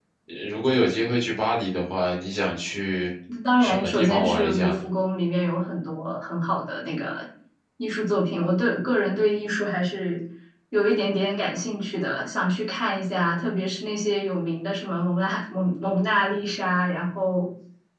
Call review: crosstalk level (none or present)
present